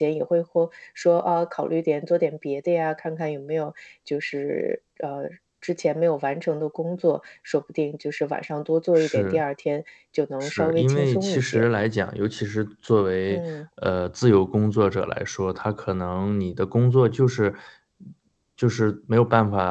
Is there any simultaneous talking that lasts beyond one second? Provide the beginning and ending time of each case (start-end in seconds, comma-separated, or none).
10.4-11.6